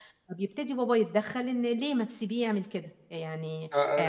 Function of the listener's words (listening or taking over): taking over